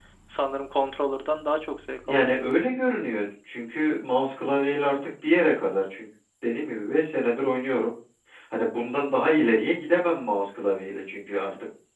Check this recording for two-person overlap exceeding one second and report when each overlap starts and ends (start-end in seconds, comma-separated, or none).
none